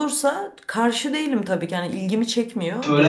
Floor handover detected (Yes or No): Yes